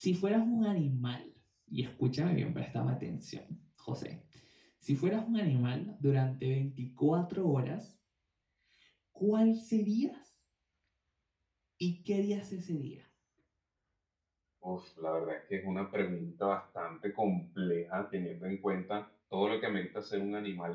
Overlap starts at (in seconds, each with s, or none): none